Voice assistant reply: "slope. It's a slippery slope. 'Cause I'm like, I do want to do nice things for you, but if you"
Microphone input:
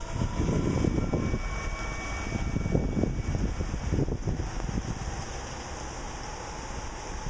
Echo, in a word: none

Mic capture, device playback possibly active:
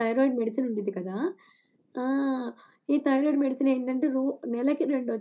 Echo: none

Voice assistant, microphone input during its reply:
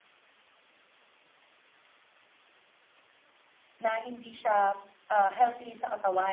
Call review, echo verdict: none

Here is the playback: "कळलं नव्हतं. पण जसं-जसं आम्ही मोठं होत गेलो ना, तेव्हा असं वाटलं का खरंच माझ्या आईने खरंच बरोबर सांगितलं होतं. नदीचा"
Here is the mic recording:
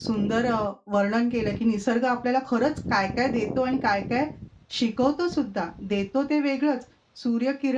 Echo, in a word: none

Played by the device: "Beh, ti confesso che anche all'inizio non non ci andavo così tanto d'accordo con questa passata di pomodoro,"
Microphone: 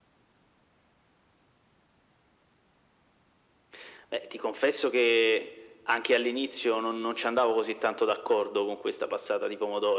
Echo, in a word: present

